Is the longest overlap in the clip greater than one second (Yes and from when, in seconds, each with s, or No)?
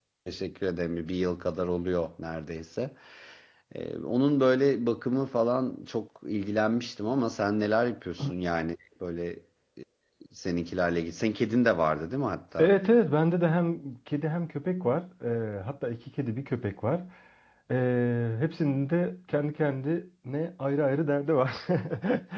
No